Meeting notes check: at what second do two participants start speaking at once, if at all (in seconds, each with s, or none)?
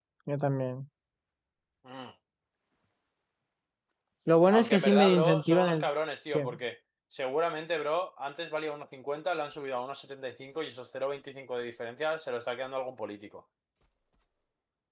4.5 s